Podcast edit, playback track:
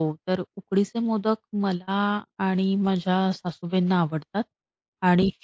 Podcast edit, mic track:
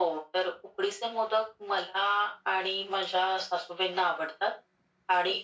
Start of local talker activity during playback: none

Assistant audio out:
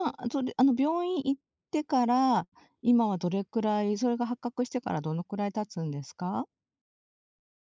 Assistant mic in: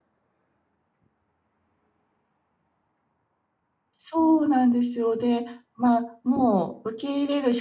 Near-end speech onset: 4 s

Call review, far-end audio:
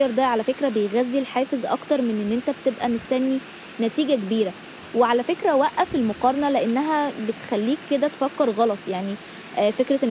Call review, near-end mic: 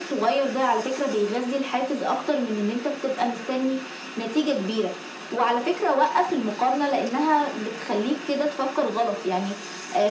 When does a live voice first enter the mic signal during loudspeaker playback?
none

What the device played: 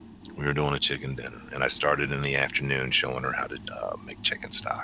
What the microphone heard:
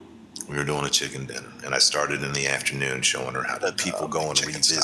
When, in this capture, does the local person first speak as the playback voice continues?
4 s

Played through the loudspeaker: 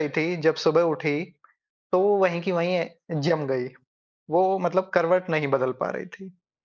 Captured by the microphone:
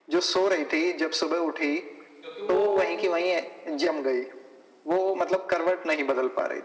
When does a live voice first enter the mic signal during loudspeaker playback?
2 s

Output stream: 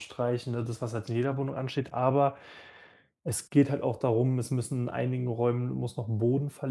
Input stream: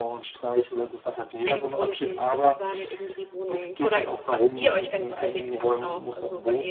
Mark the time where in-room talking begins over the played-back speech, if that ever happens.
1 s

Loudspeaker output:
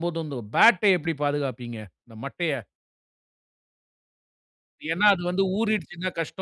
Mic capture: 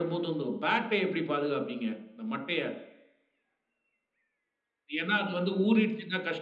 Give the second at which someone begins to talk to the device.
none

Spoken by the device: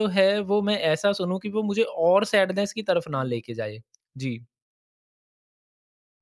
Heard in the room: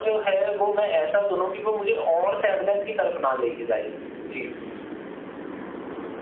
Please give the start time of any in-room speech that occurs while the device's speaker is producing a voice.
none

